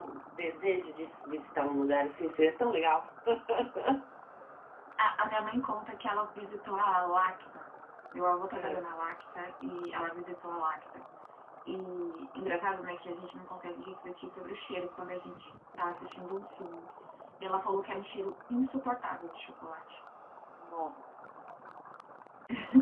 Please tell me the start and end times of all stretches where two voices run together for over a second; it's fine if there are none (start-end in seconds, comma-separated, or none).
none